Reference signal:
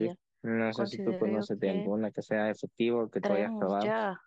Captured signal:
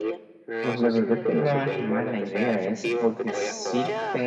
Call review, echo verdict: present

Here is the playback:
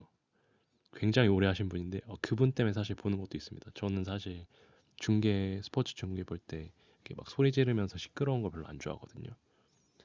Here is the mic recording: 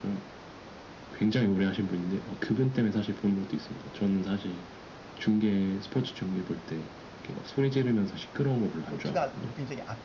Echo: present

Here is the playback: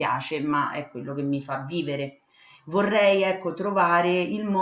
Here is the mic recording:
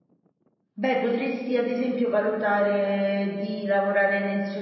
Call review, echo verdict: none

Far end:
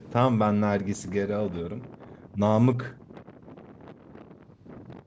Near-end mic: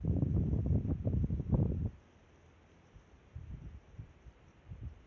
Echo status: none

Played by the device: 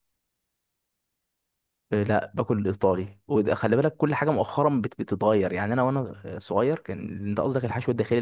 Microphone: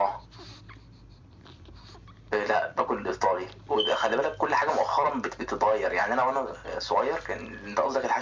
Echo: present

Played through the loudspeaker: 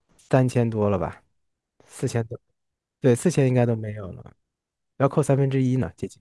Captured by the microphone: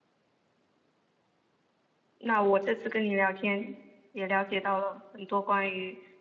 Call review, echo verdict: none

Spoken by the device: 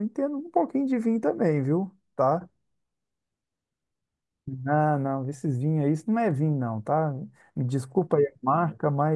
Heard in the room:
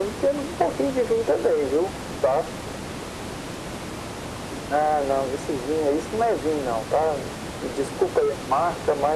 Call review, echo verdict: present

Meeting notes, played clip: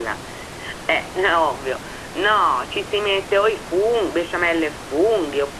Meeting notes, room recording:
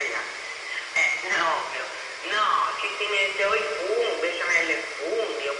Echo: present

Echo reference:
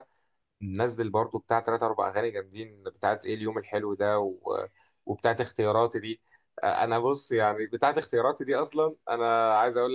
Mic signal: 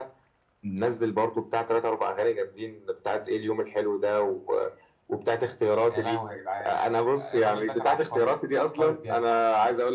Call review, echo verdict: present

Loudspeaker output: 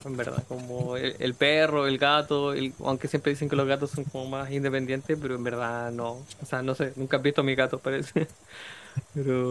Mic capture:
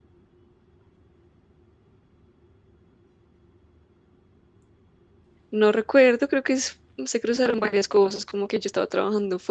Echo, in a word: none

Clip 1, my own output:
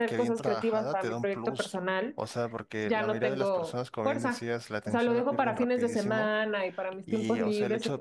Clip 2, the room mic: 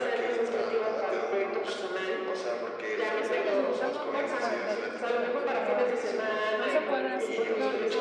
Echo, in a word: present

